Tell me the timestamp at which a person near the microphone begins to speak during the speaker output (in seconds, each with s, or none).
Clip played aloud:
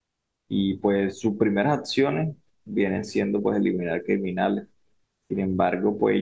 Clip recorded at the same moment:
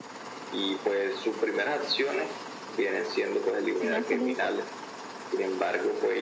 3.7 s